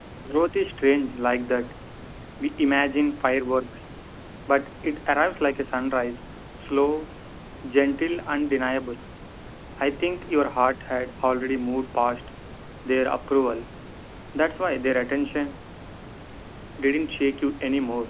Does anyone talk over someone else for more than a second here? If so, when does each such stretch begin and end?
none

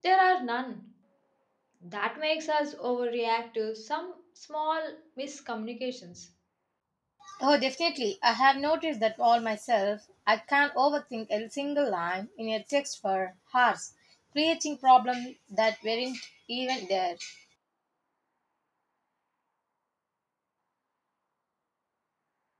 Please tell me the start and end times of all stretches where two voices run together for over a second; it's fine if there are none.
none

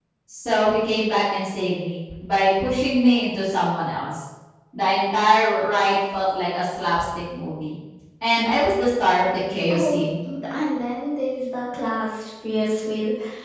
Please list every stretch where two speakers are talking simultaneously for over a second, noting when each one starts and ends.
none

